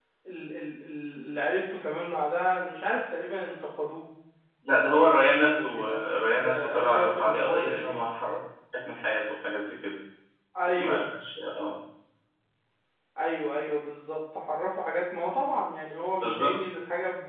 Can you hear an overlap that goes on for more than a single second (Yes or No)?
Yes